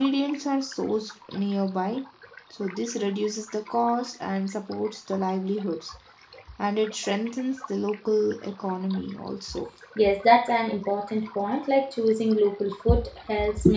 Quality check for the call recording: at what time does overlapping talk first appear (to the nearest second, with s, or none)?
none